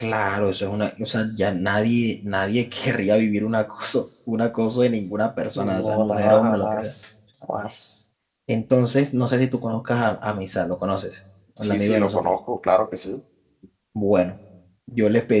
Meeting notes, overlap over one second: present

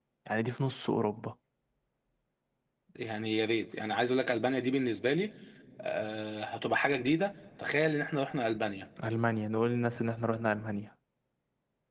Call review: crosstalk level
none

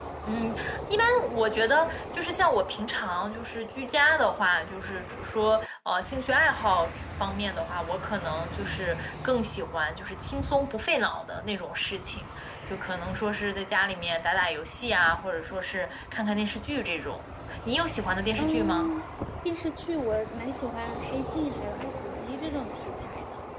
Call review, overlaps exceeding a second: none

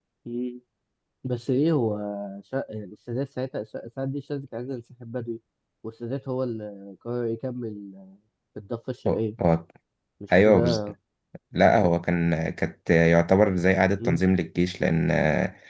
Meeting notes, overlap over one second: none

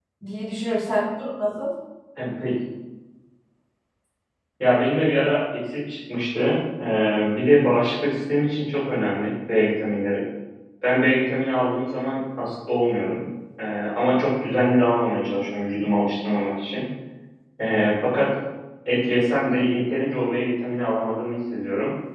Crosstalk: none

